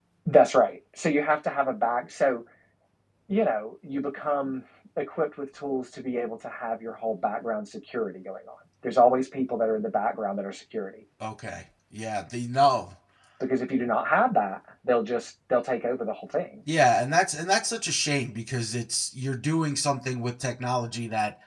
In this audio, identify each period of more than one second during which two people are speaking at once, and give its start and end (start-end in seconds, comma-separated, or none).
none